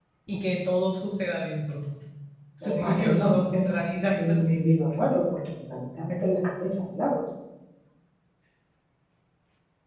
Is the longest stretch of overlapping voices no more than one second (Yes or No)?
No